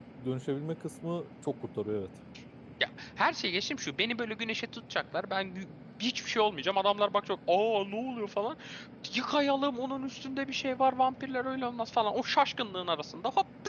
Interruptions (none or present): none